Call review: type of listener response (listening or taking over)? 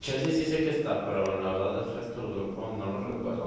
taking over